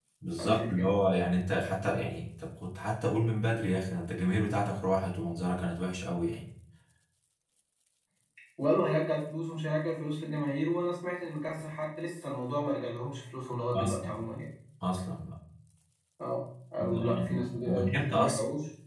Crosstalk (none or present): present